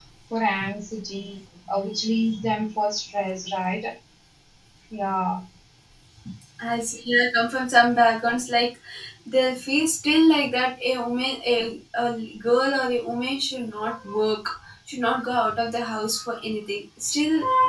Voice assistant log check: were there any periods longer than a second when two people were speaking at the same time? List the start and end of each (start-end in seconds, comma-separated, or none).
none